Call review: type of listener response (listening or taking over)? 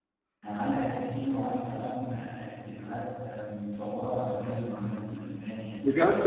taking over